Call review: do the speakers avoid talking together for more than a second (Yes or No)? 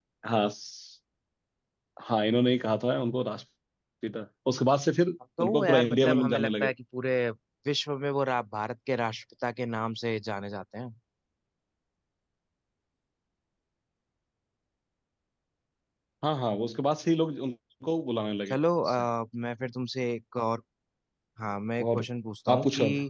No